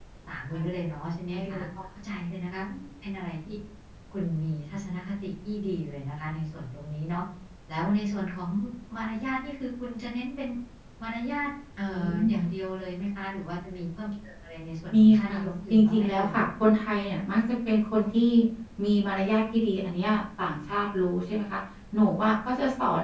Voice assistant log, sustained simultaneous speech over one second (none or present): present